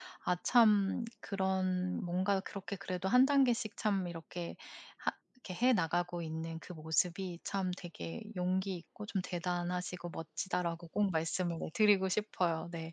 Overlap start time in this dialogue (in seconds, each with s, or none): none